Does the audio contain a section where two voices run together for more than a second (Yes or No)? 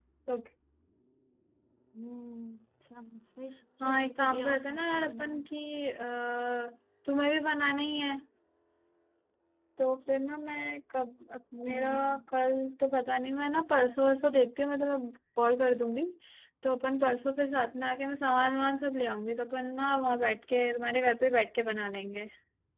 Yes